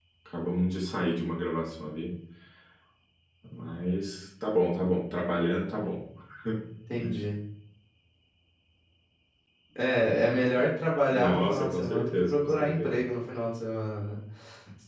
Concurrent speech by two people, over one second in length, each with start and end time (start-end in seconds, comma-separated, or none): 11.1-13.0